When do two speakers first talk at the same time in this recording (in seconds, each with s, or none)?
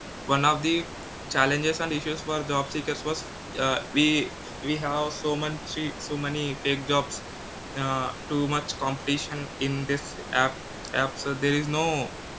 none